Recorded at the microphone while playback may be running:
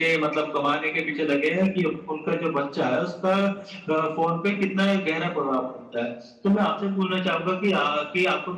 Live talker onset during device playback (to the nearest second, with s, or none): none